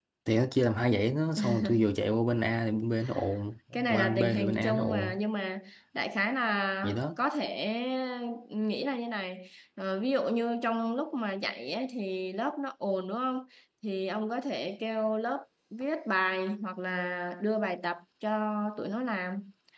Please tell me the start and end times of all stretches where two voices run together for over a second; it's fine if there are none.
3.7-5.2

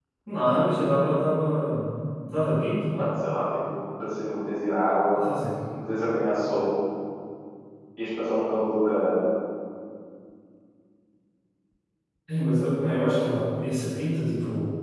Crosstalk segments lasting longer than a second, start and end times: none

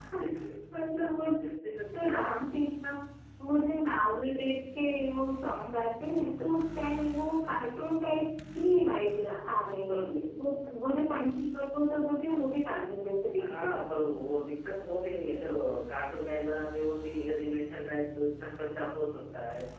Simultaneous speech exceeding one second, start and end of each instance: none

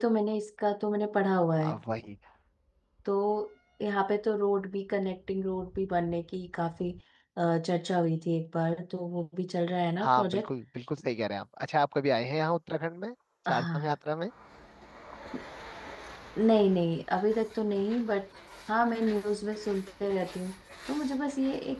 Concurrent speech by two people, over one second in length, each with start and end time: none

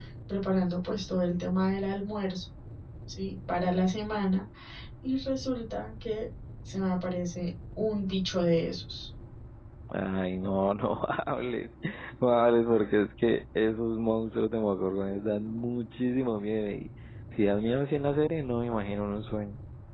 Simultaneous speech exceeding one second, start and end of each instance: none

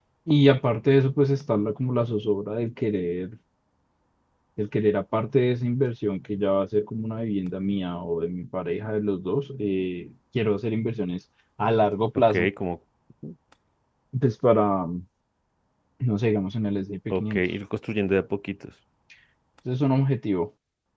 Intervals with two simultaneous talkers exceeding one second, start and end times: none

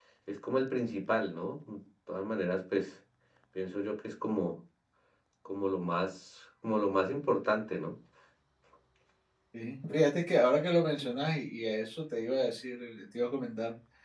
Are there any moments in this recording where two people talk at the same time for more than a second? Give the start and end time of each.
none

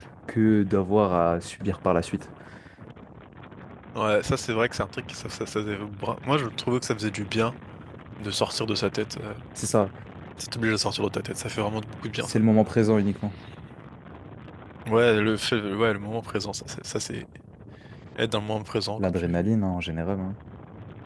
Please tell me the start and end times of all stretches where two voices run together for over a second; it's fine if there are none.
none

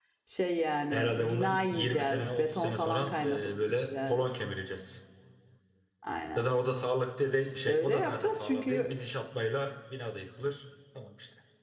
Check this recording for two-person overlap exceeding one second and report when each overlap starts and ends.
0.9-4.2, 7.7-8.9

